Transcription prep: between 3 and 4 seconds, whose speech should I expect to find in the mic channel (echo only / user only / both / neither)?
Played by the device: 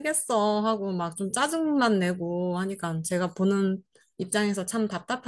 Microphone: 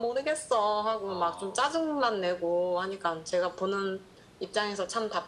echo only